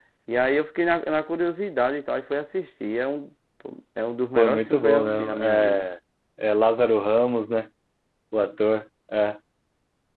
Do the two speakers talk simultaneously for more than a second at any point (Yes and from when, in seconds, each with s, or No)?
Yes, from 4.3 s